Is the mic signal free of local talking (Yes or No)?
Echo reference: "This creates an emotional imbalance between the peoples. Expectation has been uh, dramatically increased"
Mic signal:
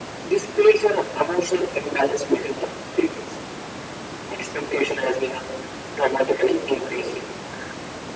Yes